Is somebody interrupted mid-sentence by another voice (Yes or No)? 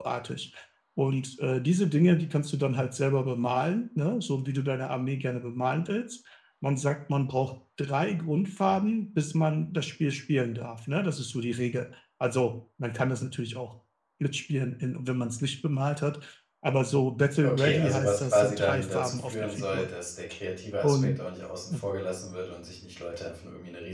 Yes